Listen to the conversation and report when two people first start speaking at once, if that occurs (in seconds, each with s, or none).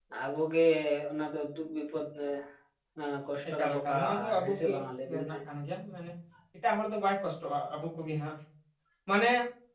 3.5 s